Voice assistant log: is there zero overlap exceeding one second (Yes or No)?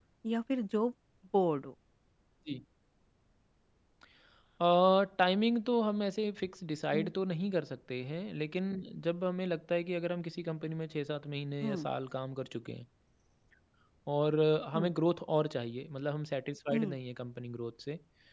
Yes